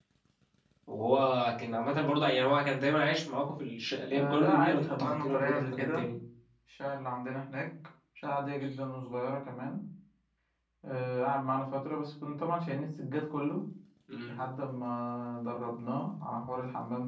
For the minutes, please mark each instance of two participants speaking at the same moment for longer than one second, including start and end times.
4.1-6.0

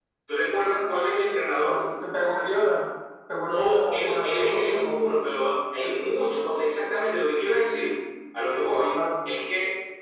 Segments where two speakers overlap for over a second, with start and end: 3.4-5.1

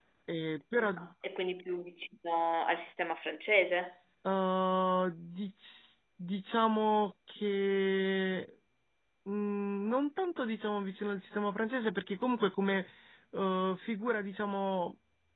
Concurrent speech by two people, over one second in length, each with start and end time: none

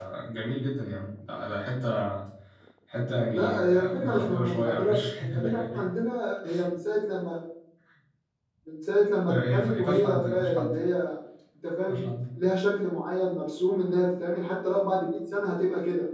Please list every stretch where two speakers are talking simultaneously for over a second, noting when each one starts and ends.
3.3-5.8, 9.3-10.8

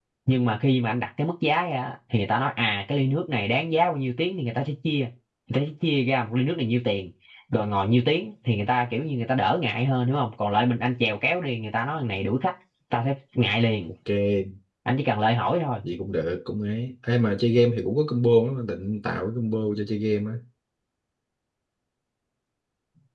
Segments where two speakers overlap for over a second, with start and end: none

